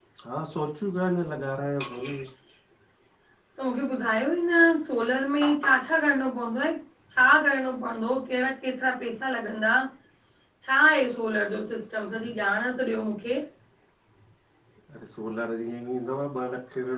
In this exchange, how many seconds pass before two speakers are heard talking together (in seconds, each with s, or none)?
none